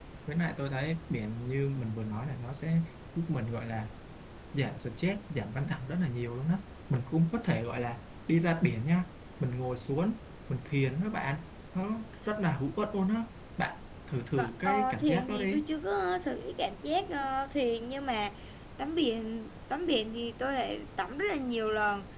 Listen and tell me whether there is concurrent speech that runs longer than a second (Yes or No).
Yes